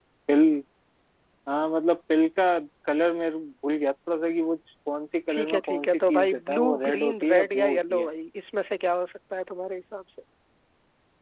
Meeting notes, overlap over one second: present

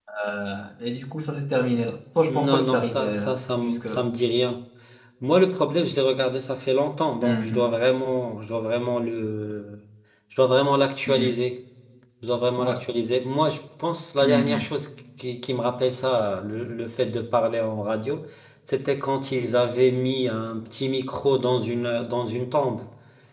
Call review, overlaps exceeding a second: present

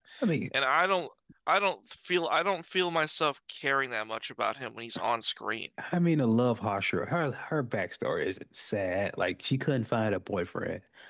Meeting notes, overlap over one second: none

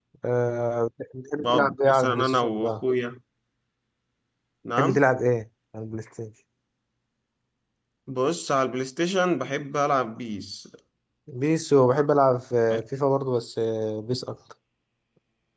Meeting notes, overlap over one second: present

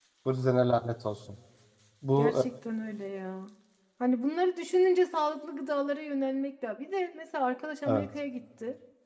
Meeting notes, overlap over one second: none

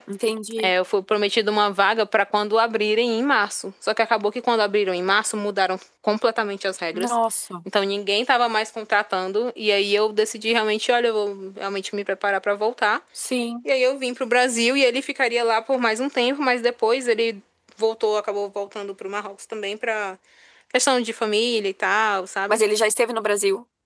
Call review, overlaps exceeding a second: none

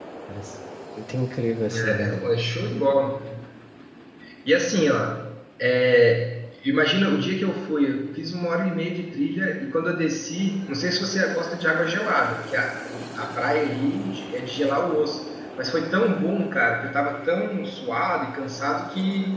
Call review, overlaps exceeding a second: none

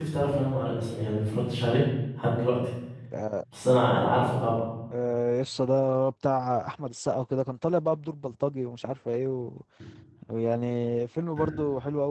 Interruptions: none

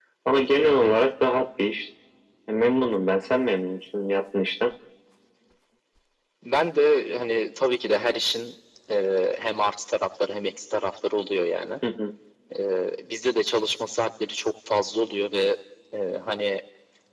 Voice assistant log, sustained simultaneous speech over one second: none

